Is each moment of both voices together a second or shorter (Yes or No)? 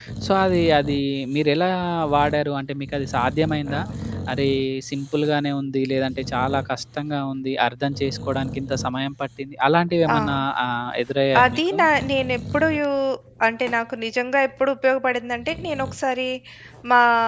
Yes